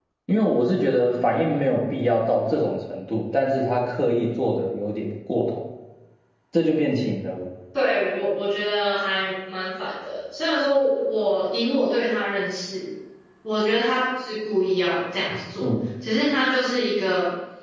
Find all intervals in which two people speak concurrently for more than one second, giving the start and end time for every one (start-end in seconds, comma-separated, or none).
none